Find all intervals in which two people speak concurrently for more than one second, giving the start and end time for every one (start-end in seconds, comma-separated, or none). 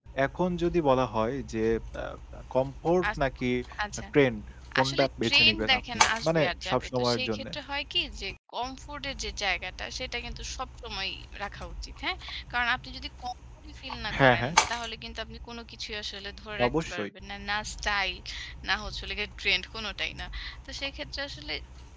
4.8-7.5